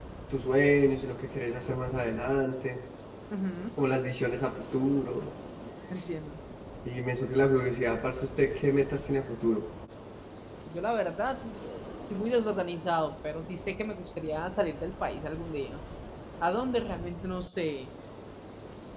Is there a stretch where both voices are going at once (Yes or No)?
No